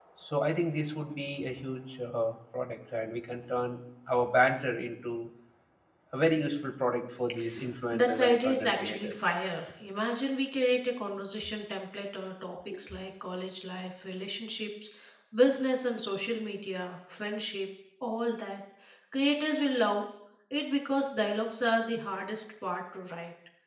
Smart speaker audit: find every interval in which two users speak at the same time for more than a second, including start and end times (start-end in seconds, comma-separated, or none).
7.9-9.3